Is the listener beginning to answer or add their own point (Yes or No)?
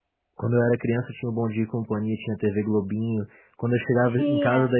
No